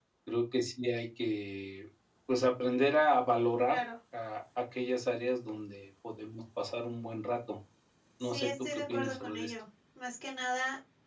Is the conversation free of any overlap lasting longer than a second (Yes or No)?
No